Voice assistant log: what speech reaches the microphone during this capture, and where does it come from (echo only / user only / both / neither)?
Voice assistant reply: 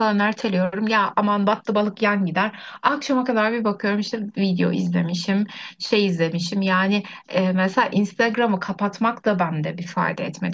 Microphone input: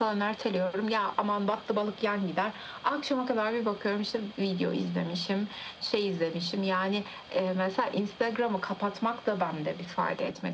echo only